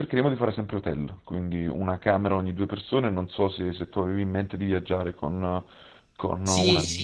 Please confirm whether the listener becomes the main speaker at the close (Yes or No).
Yes